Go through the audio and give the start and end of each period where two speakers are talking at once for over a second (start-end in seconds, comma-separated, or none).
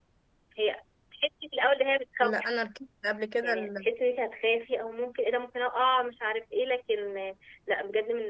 none